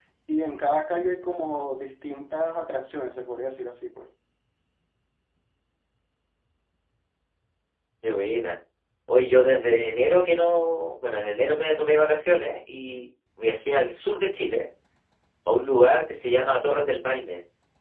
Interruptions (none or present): none